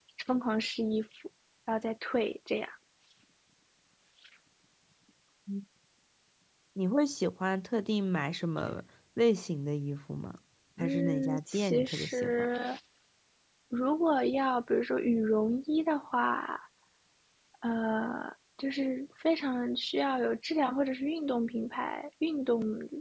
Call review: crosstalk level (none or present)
present